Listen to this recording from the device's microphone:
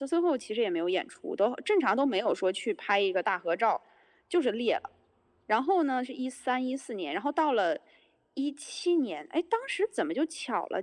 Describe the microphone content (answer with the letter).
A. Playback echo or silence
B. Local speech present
A